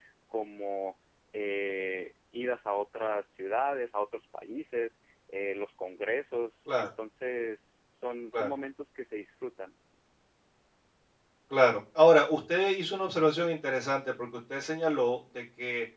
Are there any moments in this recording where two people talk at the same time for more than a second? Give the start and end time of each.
none

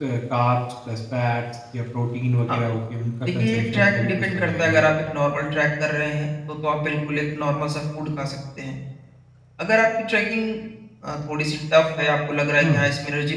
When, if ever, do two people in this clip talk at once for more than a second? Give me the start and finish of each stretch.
3.2-5.0

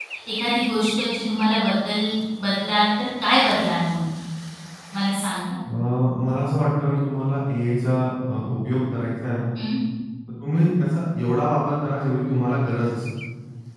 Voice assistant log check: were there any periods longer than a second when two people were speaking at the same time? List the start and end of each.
none

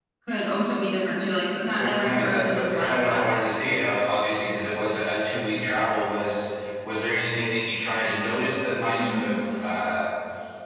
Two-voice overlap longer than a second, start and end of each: 1.8-3.2

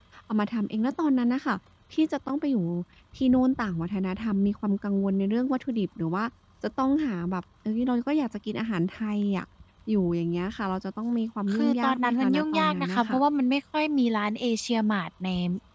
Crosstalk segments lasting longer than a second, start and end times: 11.5-13.2

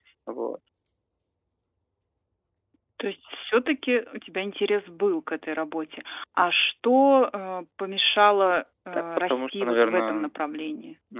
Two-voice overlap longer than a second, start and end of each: 8.9-10.3

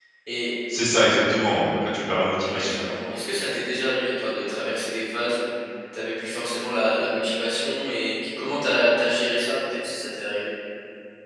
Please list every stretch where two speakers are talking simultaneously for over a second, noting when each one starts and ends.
none

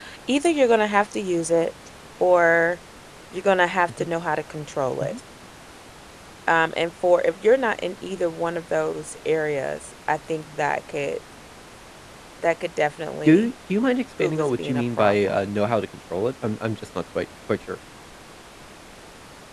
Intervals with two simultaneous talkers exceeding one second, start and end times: 14.2-15.4

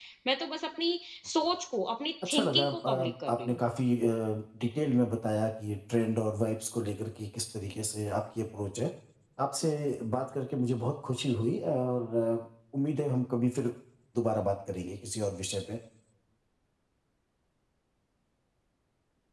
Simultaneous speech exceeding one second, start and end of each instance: 2.2-3.6

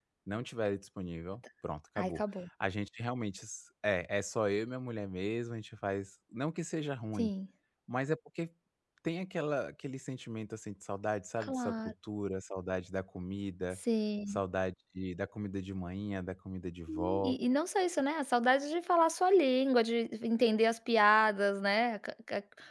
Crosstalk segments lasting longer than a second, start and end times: none

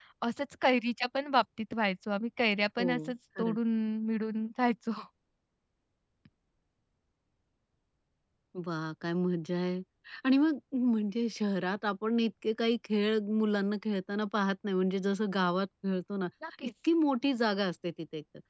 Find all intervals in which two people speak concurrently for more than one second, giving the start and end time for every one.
none

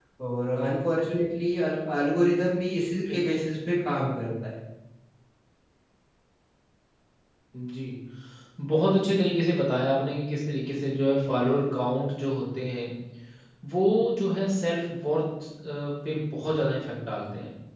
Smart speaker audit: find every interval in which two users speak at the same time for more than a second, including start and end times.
none

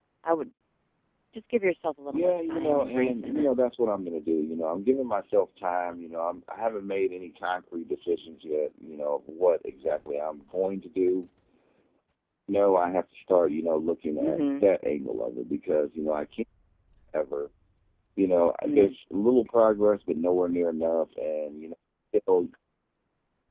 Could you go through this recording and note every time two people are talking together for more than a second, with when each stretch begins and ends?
2.1-3.5

